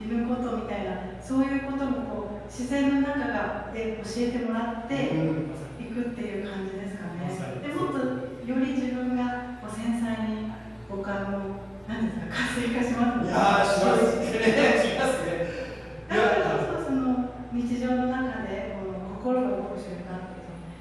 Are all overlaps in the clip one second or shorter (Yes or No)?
No